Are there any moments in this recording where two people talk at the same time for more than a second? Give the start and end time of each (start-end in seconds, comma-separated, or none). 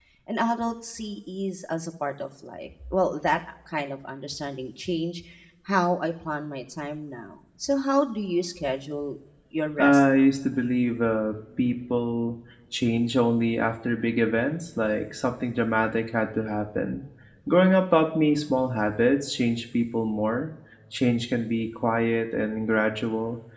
none